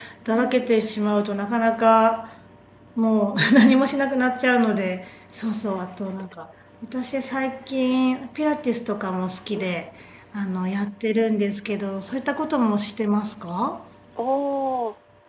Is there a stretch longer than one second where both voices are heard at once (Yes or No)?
No